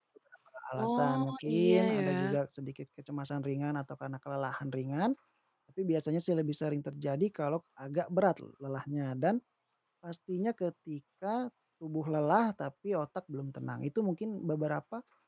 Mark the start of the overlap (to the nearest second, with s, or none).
1 s